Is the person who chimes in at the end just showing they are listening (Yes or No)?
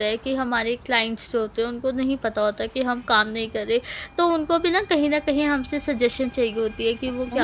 Yes